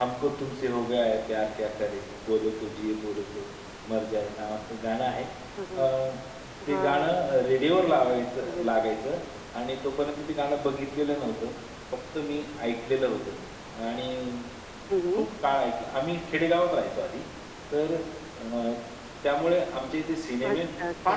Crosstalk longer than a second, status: none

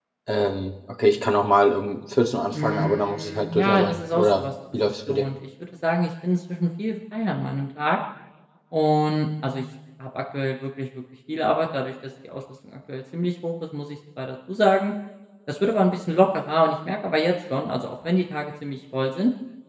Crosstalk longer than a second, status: present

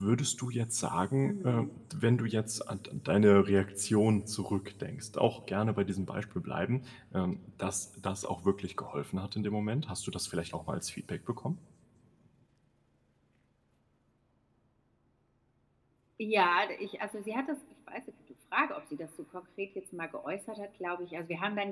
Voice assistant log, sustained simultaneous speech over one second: none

